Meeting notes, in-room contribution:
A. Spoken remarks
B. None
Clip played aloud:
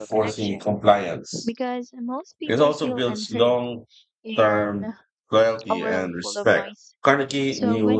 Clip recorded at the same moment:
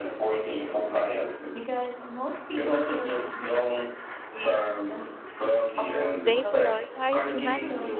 A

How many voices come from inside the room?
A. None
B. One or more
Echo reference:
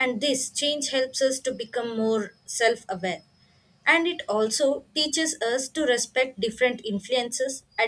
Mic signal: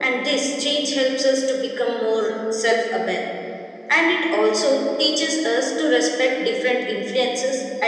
A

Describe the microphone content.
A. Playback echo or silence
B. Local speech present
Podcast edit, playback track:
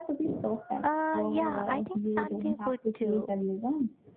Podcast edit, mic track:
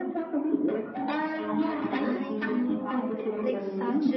B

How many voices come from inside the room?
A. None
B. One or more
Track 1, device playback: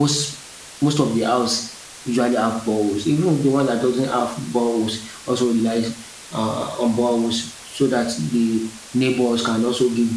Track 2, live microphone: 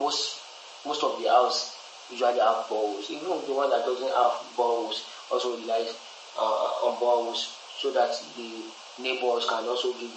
A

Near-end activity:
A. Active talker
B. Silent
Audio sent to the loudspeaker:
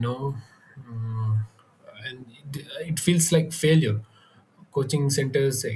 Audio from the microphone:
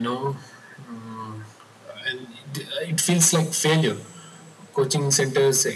B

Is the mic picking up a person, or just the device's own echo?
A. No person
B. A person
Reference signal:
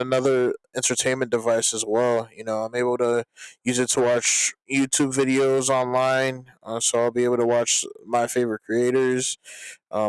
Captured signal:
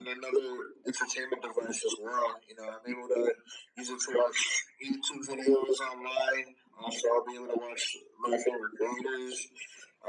A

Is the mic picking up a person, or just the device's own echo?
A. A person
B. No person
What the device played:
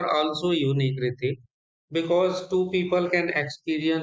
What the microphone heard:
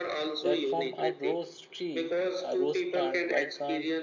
A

